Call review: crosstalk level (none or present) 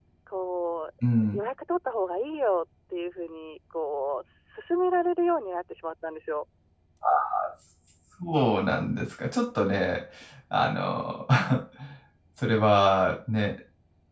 none